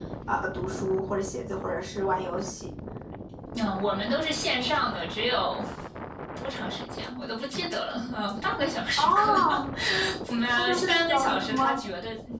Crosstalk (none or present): present